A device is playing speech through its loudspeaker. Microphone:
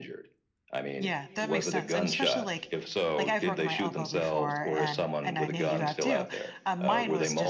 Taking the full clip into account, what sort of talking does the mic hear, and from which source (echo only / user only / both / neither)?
both